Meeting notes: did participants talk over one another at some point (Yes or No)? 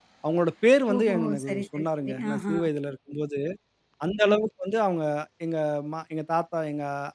Yes